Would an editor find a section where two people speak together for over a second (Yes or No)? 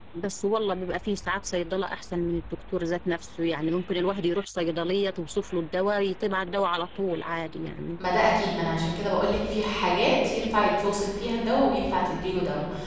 No